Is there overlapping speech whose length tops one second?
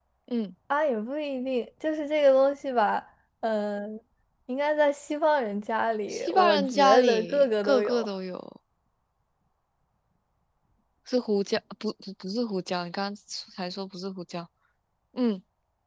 Yes, from 6.1 s

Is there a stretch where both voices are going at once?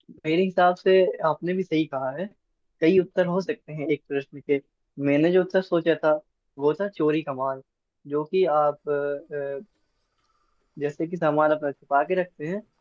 No

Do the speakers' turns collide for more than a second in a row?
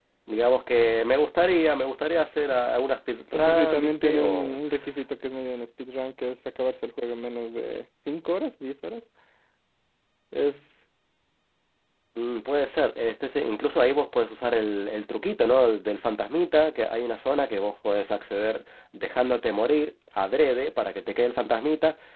Yes, from 3.3 s

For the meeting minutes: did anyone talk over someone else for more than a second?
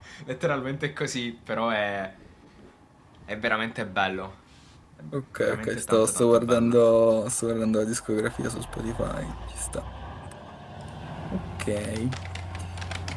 Yes, from 5.4 s

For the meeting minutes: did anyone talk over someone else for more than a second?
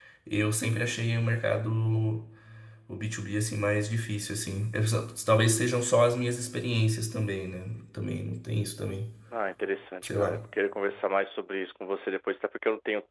No

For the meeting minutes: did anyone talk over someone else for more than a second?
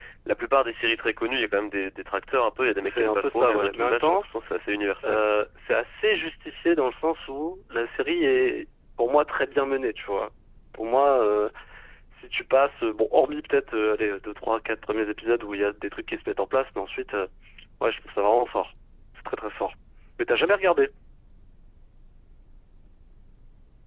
Yes, from 2.8 s

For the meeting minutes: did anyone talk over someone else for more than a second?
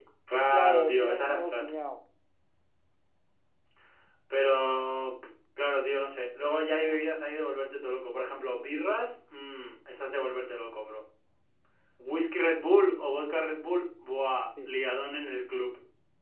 Yes, from 0.5 s

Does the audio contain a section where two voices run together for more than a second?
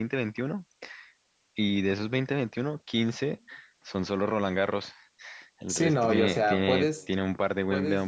Yes, from 5.7 s

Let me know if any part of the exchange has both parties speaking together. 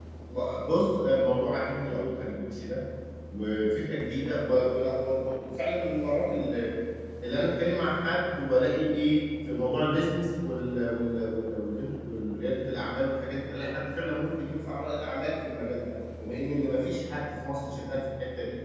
No

